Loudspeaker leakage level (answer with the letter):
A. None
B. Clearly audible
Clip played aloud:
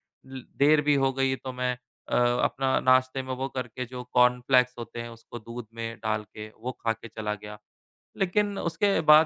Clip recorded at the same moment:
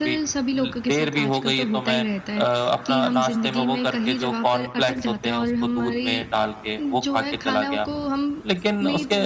B